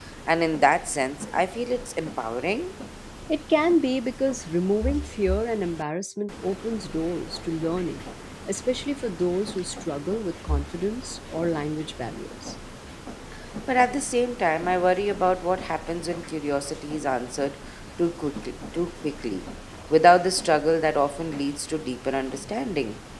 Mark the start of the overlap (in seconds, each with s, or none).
none